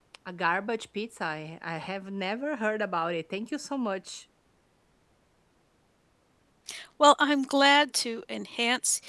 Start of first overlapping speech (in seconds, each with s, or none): none